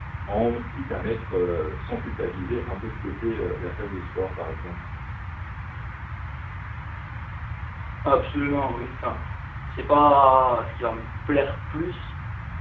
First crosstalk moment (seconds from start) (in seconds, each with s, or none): none